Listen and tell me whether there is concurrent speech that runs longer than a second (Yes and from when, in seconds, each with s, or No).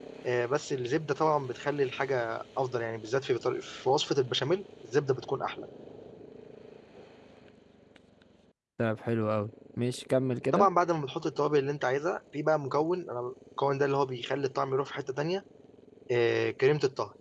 No